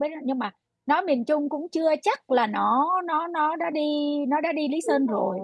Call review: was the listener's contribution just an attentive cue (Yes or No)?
No